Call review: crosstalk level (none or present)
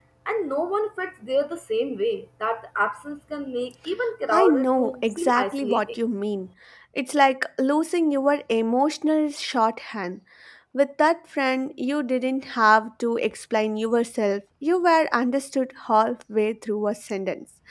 present